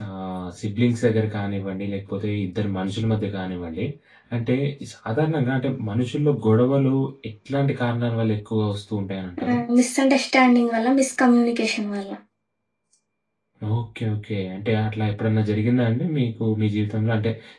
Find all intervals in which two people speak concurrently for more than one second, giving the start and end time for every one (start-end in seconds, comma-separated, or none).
none